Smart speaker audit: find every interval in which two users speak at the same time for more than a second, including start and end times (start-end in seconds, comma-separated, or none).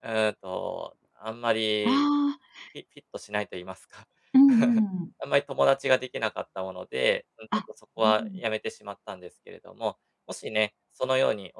none